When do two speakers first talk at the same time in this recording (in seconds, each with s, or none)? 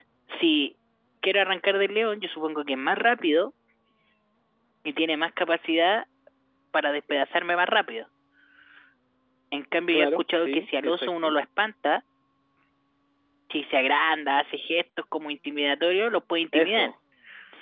9.9 s